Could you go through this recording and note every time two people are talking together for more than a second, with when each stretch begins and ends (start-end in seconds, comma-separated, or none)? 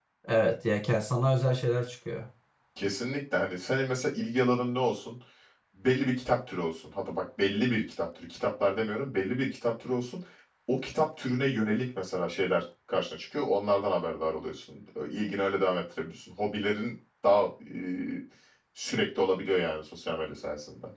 none